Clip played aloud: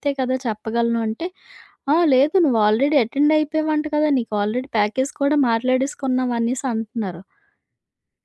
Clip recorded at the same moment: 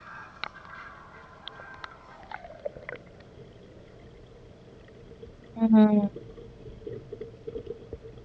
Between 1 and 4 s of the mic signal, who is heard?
neither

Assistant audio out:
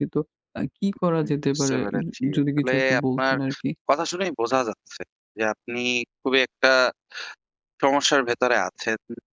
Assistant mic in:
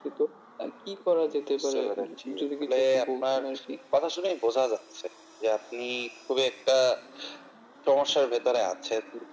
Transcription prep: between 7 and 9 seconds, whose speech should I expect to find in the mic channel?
echo only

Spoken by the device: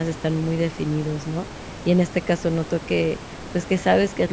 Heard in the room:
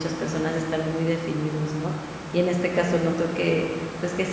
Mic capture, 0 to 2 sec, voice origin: echo only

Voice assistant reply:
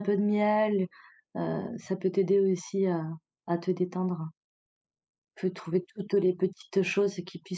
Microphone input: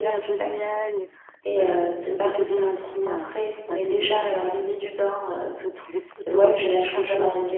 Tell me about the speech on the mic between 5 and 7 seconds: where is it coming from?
both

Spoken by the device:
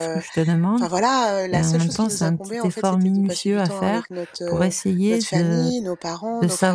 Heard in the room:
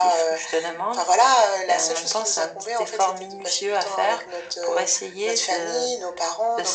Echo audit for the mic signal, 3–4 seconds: echo only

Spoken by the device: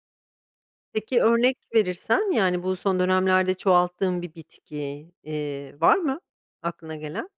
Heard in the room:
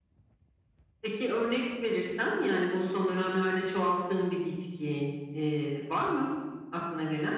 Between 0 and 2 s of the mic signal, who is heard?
echo only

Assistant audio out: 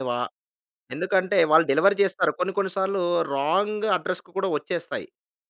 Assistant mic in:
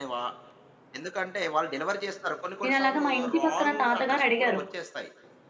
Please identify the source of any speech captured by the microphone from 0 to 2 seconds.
echo only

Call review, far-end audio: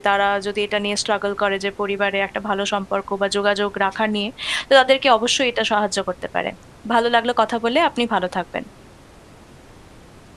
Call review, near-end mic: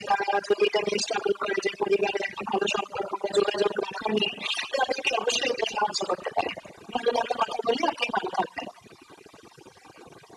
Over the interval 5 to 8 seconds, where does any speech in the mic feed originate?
echo only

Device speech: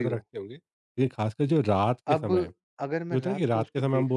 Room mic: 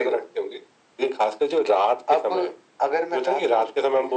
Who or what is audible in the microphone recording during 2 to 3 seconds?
echo only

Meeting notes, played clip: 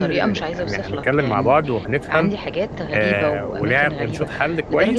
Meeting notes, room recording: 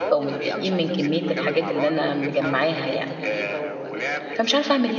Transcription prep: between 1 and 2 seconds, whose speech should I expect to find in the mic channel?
both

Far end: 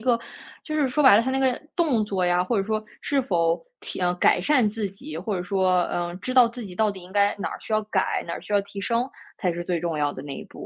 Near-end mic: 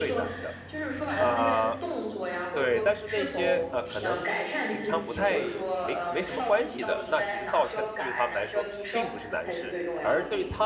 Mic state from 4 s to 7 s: both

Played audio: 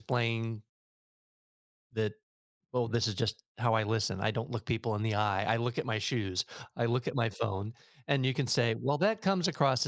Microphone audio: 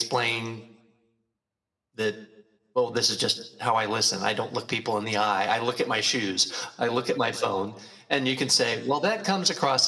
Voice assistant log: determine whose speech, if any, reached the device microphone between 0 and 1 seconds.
echo only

